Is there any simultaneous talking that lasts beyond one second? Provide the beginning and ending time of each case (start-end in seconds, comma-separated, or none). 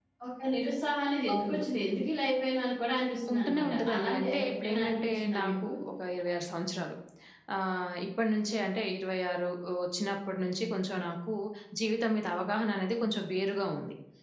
3.3-5.7